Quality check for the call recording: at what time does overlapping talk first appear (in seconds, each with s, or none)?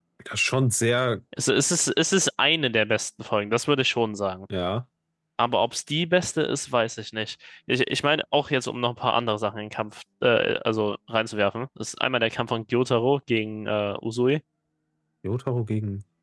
none